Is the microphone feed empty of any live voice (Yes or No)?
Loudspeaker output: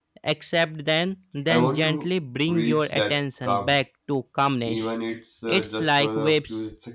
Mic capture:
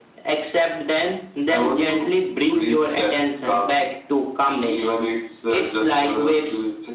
Yes